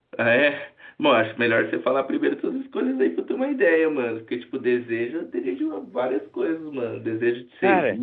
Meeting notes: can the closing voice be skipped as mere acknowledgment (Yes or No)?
Yes